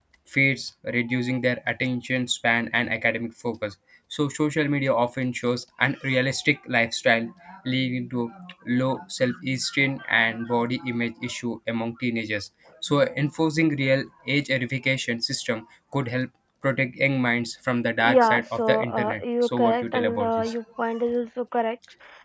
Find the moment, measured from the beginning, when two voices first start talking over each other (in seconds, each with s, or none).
18.0 s